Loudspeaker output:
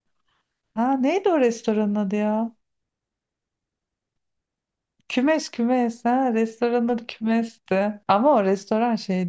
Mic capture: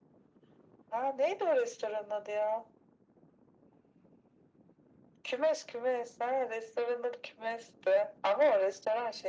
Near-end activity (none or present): none